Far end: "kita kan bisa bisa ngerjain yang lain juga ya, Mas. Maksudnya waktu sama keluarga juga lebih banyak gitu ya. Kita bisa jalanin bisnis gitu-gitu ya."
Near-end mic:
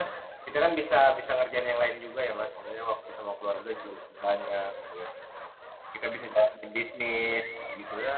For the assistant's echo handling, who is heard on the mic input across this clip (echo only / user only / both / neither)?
echo only